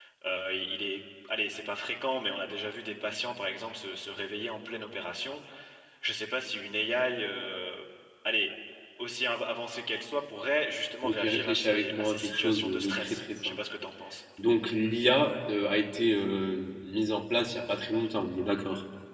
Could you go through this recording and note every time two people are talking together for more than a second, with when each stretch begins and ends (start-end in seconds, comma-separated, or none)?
11.0-13.6